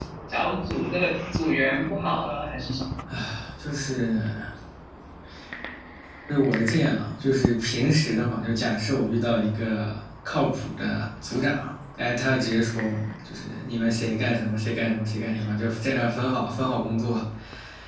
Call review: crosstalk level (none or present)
none